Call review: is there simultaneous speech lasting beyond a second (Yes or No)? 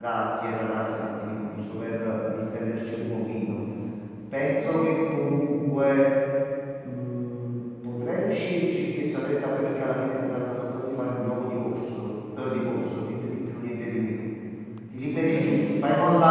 Yes